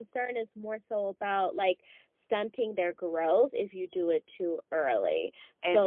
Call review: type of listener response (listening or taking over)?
listening